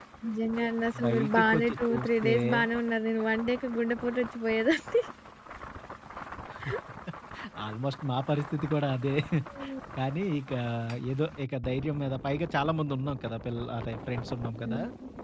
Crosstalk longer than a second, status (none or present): present